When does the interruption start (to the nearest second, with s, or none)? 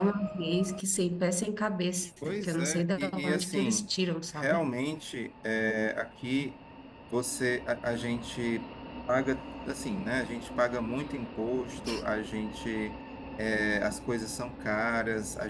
2 s